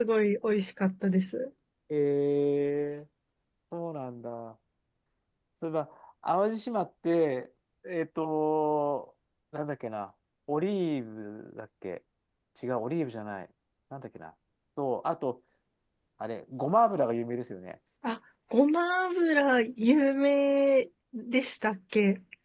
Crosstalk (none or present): none